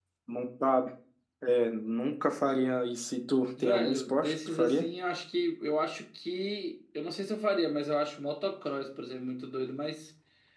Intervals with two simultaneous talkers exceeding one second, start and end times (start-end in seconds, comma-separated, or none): 3.6-4.8